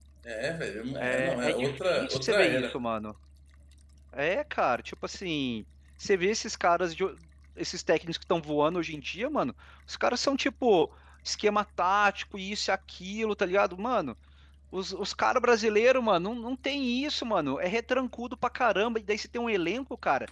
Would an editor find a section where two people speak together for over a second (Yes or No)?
Yes